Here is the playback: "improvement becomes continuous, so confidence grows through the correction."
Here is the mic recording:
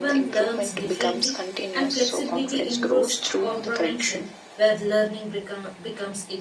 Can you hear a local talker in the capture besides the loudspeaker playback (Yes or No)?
Yes